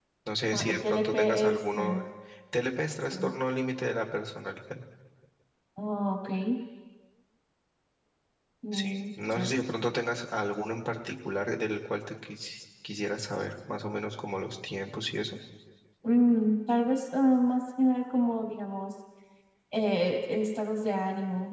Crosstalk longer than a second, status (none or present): present